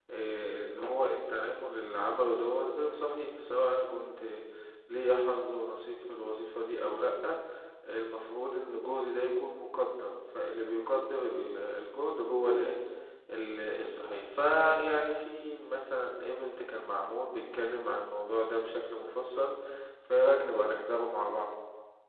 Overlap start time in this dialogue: none

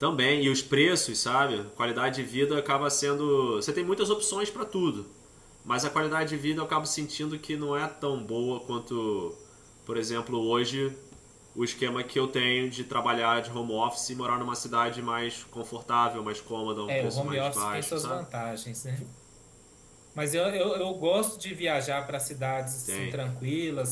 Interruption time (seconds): 16.9 s

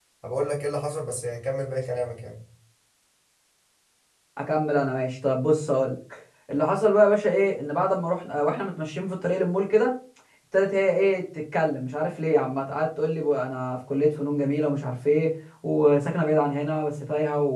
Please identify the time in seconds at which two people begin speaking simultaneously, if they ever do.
none

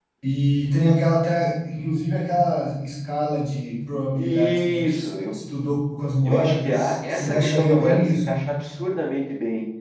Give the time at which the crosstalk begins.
4.2 s

